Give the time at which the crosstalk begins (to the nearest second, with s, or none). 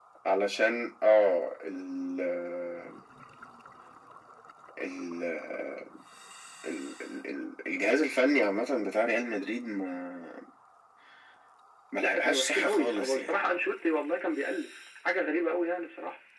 12 s